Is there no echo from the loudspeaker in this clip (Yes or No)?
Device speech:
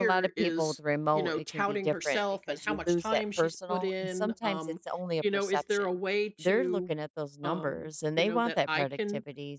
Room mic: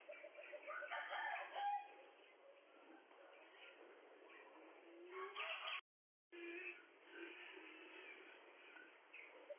Yes